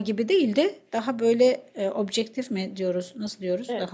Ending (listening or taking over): listening